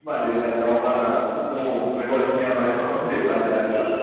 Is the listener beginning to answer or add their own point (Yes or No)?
Yes